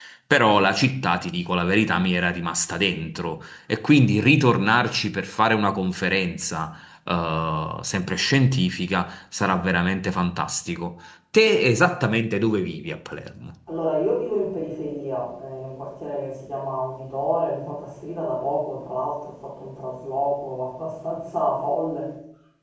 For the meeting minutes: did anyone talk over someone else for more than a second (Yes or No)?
No